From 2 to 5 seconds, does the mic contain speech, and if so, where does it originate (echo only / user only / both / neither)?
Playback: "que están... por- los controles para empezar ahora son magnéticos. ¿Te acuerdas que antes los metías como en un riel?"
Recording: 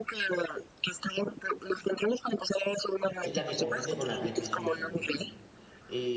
both